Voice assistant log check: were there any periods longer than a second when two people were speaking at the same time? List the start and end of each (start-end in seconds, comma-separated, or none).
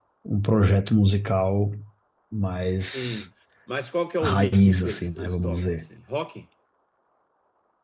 4.2-5.8